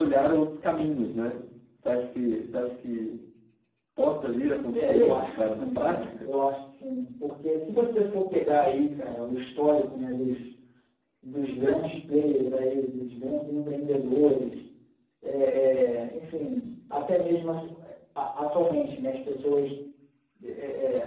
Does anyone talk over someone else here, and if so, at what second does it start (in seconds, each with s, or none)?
4.7 s